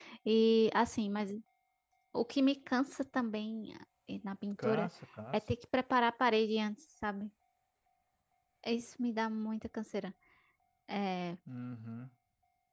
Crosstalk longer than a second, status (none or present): none